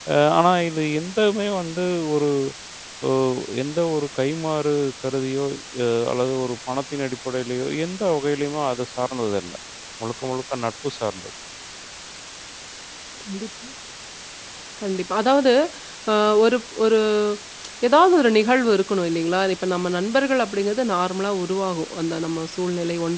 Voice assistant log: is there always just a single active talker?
Yes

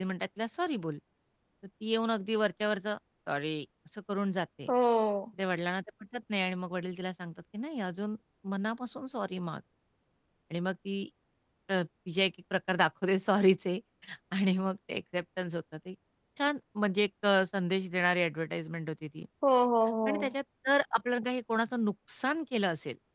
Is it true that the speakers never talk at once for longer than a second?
Yes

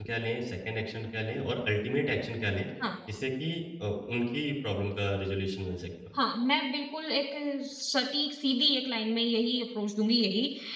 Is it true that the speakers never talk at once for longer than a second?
Yes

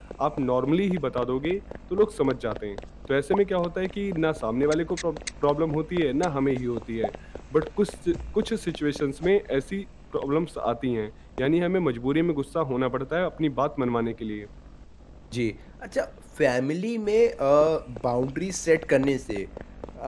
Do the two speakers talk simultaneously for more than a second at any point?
No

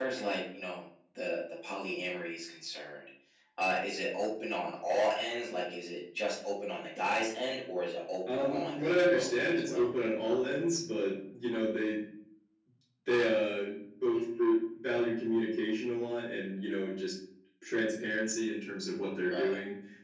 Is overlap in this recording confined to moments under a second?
No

